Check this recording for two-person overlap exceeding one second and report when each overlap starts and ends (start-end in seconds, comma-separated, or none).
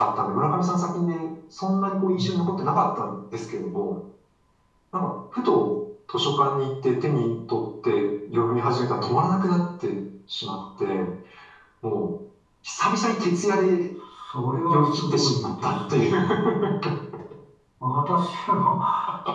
14.5-16.5